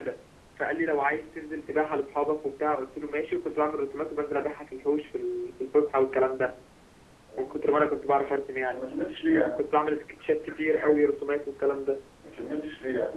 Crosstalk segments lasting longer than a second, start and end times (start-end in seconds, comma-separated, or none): none